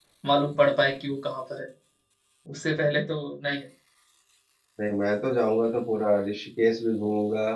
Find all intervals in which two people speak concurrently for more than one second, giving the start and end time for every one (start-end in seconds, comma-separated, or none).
none